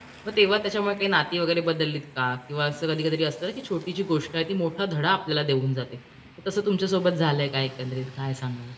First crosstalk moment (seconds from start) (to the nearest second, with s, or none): none